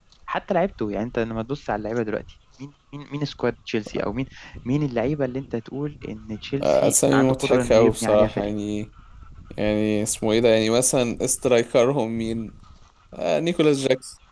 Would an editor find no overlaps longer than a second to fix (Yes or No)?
No